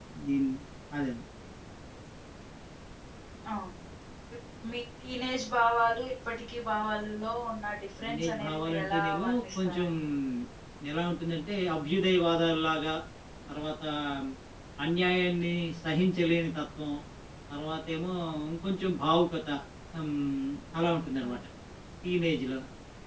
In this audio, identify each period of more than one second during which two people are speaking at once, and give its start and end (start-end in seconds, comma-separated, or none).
8.0-9.9